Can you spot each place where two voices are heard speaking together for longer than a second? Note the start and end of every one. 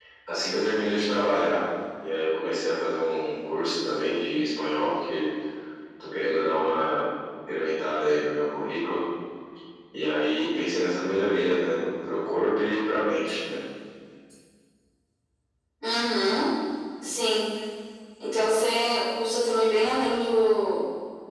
none

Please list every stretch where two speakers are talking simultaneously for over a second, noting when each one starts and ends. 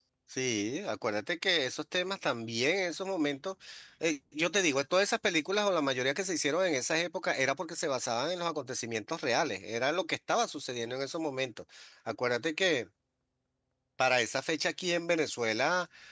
none

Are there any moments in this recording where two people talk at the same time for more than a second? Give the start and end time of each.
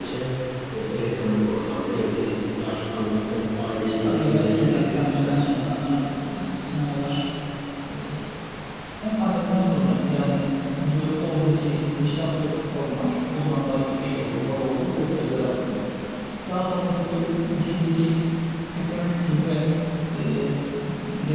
4.0-5.5

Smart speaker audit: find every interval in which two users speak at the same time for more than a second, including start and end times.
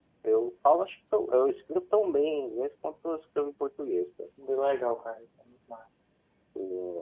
none

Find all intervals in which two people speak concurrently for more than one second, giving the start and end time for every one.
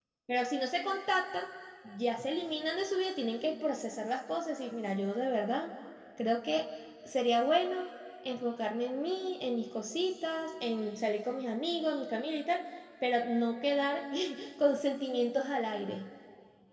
none

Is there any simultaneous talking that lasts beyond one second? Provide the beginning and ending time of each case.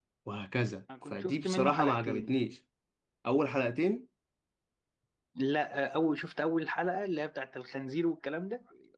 1.1-2.3

